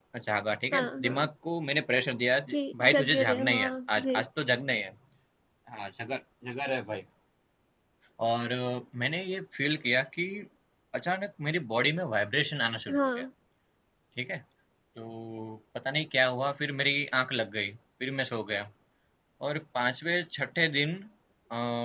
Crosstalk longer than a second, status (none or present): present